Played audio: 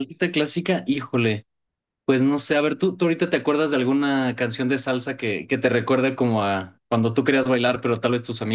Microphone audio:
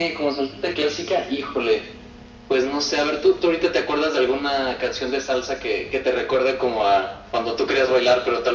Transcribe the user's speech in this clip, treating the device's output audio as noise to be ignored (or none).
none